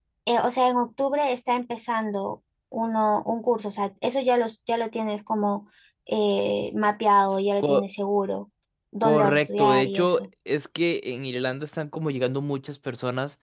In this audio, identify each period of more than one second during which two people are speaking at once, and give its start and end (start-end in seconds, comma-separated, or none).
9.0-10.3